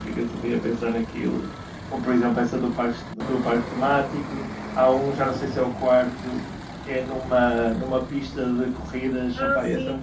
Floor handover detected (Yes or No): No